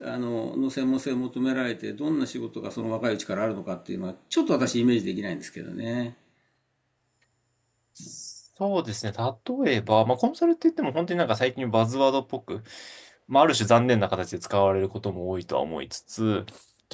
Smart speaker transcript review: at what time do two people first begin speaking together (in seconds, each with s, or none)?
none